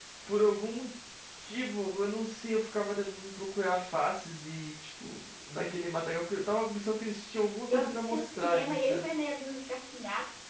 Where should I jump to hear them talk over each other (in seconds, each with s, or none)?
7.7 s